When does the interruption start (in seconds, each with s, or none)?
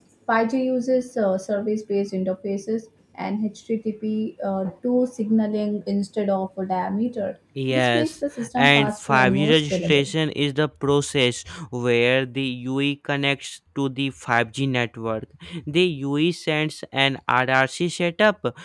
7.6 s